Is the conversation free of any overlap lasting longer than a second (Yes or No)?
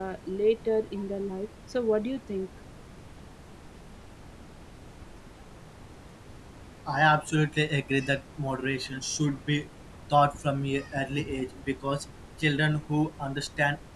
Yes